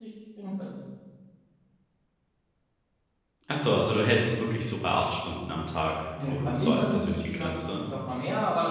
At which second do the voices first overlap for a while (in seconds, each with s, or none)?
6.2 s